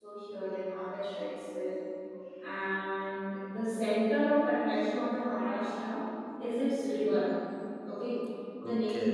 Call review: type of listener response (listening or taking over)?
listening